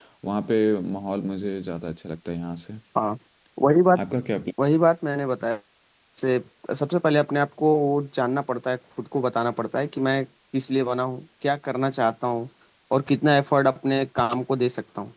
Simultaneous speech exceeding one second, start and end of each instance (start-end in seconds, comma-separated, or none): none